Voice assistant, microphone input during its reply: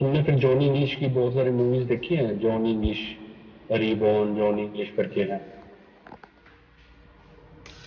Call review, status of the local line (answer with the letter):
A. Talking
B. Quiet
B